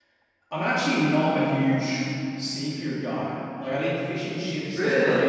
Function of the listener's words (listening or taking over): listening